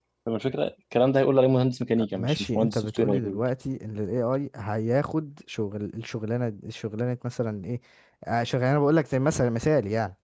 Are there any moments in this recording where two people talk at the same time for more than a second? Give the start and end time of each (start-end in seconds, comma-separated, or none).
2.1-3.4